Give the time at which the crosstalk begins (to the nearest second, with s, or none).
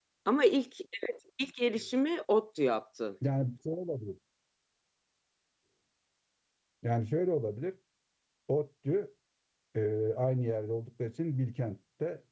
none